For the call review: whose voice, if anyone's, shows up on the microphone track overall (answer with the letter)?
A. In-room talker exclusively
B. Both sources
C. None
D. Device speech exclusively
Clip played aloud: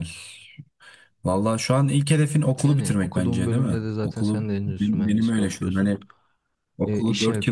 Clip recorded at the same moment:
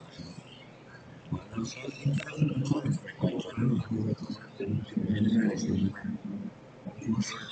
D